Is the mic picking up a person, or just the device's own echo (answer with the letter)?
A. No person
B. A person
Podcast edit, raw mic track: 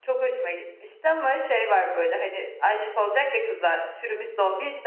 B